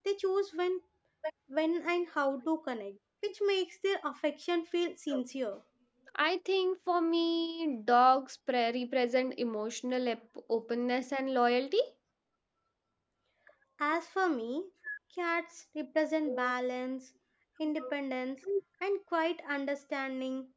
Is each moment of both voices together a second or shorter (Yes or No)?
Yes